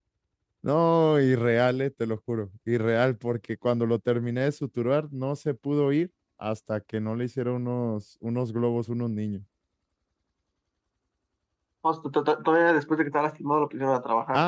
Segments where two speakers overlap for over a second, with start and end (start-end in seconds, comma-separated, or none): none